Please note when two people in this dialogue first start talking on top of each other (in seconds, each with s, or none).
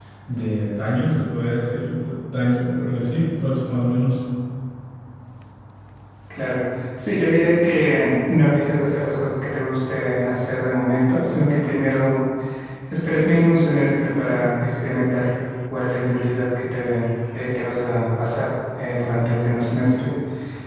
none